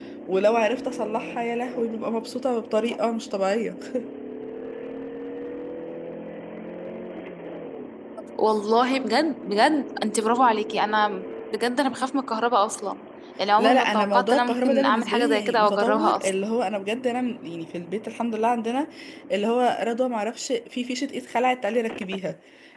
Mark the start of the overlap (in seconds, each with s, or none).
13.6 s